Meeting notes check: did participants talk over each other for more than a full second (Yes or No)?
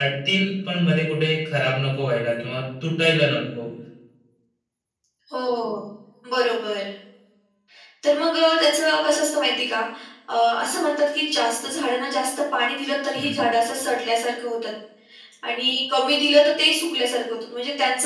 No